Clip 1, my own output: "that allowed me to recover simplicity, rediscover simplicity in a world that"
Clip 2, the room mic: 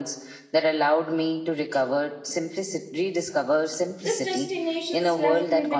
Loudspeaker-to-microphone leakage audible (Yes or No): Yes